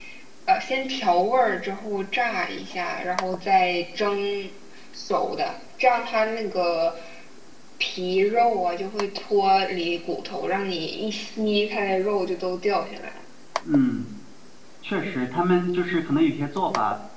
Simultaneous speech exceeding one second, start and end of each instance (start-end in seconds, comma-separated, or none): none